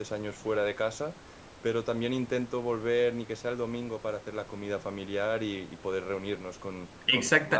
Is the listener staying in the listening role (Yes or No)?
Yes